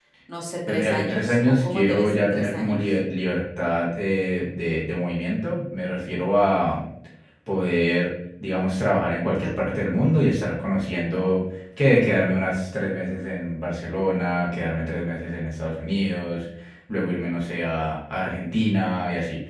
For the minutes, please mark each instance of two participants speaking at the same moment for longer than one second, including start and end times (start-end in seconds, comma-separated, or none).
0.7-2.9